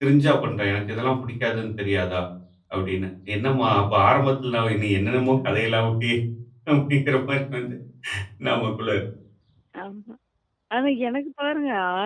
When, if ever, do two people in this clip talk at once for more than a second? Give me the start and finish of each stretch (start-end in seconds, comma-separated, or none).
none